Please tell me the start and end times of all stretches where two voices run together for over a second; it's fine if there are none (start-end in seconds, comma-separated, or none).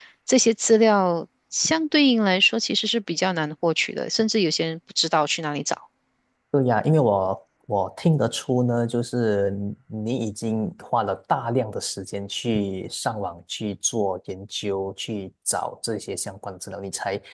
none